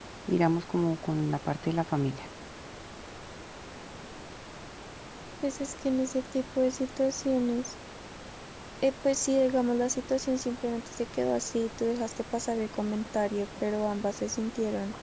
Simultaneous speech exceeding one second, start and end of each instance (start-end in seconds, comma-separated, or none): none